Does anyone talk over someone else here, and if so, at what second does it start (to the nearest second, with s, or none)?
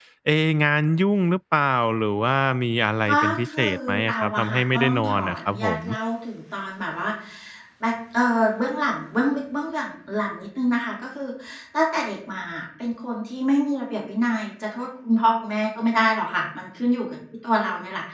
3 s